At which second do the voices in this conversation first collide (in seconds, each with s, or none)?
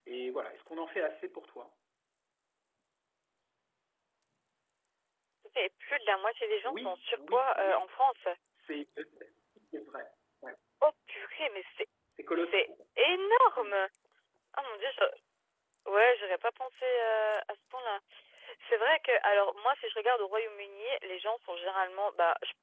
6.6 s